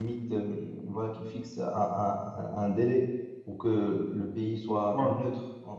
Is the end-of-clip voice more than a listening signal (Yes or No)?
No